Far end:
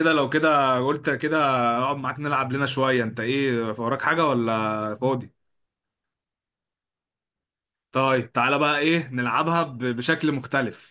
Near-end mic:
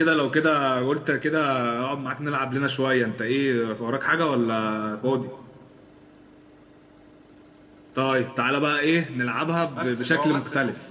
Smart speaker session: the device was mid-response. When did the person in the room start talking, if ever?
10 s

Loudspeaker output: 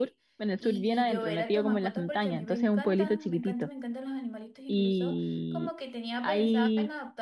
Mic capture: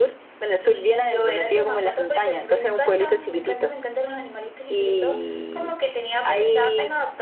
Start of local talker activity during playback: none

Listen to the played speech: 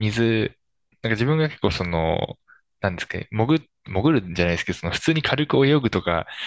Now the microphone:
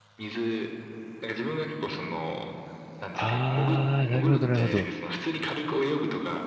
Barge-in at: 3 s

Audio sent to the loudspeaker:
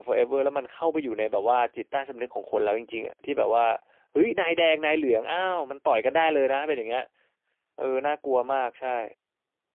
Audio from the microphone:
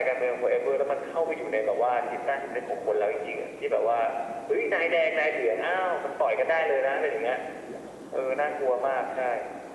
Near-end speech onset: none

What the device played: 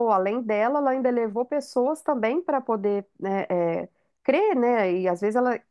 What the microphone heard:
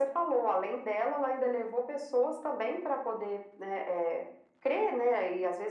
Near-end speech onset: none

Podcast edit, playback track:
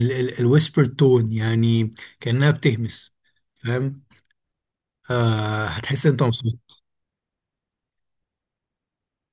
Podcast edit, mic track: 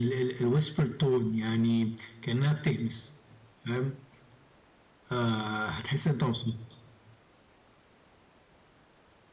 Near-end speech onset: none

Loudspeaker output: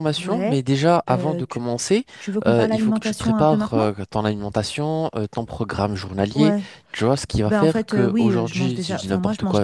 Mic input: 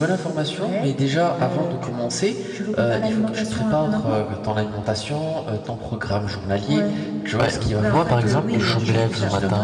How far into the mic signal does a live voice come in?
7 s

